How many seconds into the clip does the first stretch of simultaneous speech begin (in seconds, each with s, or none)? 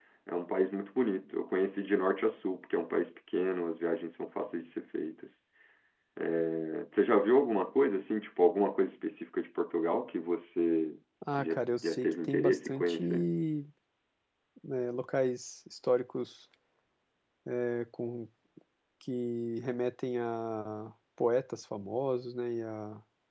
11.4 s